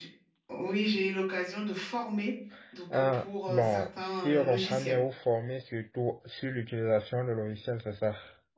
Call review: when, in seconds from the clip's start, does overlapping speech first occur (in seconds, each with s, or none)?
2.9 s